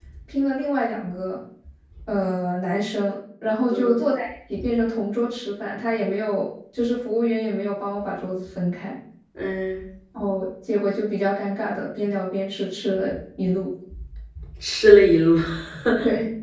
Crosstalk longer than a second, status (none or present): none